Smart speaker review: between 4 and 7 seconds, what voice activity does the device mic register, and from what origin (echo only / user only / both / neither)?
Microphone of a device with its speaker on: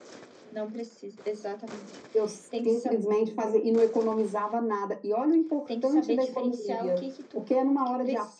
echo only